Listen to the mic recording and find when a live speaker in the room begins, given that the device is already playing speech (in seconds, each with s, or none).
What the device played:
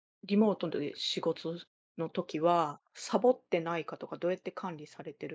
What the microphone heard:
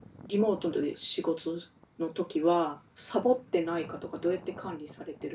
none